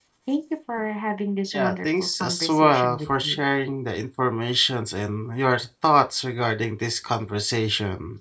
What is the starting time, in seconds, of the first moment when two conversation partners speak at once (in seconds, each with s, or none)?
1.5 s